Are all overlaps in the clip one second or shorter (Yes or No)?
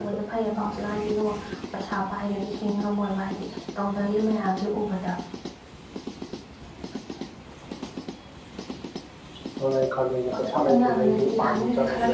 No